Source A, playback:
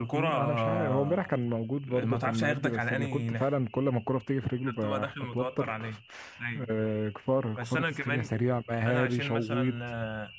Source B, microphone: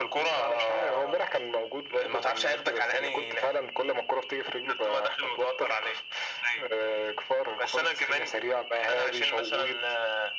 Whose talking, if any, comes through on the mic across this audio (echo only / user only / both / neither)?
echo only